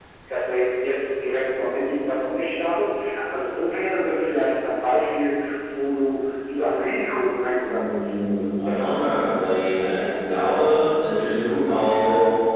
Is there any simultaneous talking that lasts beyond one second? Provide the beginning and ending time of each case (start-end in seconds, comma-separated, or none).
7.7-9.1